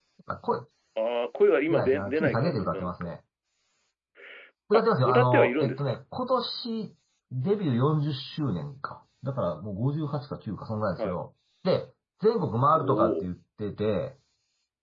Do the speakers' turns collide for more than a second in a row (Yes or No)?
Yes